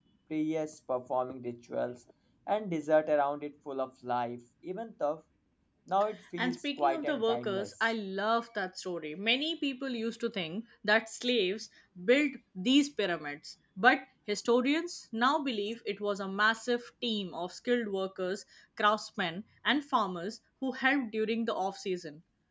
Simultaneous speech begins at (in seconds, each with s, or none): 6.4 s